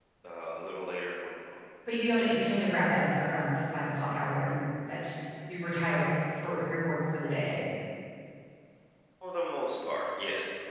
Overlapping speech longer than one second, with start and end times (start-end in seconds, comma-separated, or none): none